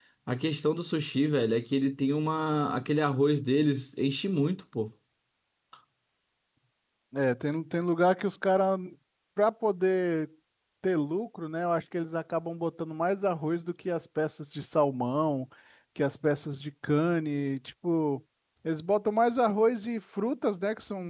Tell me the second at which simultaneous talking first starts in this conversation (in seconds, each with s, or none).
none